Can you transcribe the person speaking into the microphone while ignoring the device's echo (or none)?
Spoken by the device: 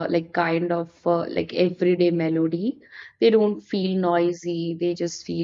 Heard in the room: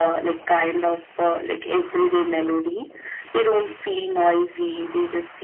none